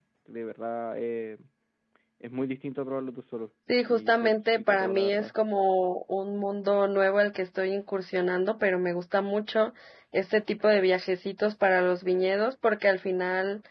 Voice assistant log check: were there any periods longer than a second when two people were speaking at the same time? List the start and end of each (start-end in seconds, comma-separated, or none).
3.9-5.3